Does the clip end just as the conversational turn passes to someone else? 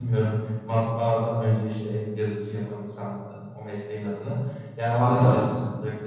No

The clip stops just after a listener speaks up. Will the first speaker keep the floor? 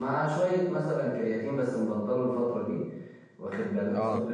Yes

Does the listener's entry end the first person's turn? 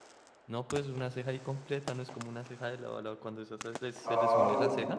Yes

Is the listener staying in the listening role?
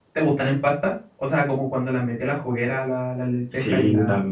No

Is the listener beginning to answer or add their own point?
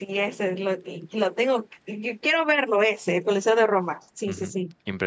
Yes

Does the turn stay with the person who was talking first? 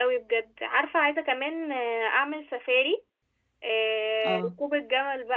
Yes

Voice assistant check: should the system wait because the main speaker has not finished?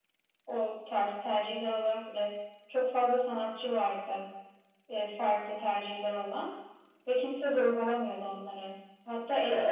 Yes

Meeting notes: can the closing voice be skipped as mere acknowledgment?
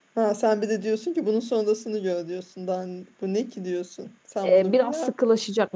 No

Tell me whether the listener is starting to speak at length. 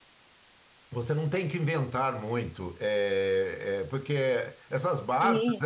No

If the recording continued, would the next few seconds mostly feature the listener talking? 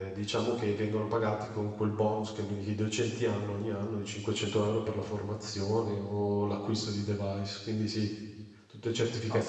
No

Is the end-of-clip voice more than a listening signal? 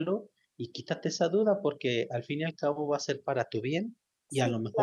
No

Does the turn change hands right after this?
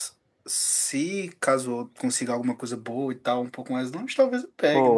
Yes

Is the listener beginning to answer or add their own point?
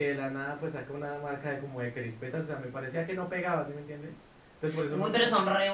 Yes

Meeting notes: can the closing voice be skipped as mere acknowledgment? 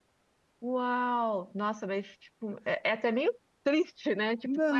No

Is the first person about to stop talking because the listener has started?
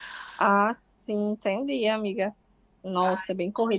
No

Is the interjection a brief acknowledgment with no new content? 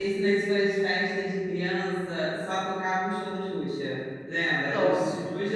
Yes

